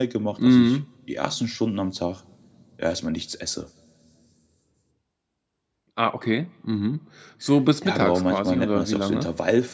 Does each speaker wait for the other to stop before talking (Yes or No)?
No